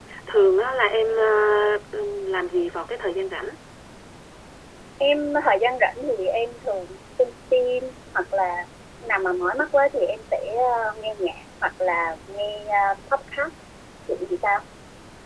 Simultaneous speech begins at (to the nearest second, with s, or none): none